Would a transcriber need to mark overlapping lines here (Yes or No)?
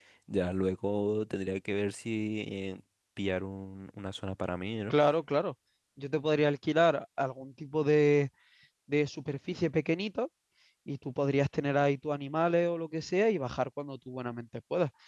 No